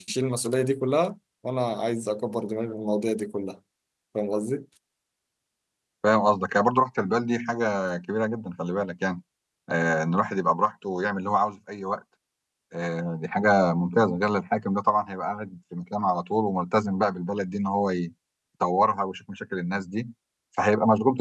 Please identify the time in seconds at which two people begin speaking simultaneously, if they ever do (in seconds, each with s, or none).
none